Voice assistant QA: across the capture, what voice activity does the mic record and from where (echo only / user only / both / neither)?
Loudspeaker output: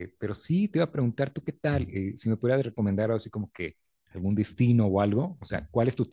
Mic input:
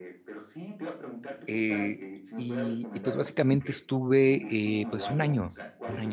both